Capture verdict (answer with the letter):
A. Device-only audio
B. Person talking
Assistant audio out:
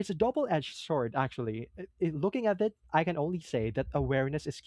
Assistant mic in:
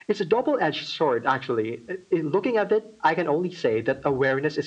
A